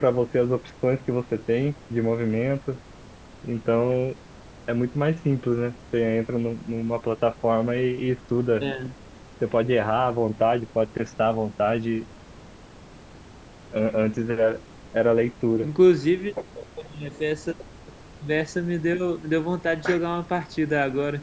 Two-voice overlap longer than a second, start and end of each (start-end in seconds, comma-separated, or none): none